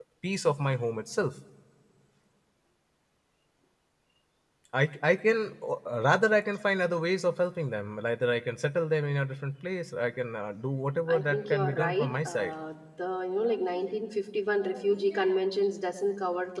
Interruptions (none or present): present